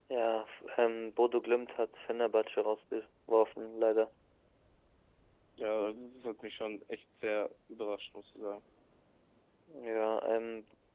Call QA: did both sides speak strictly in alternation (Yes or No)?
Yes